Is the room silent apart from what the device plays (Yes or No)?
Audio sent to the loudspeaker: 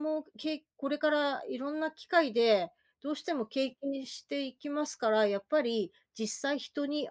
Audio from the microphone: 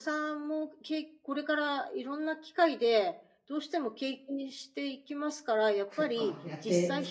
No